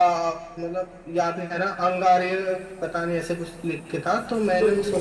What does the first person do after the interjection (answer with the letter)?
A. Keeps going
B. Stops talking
B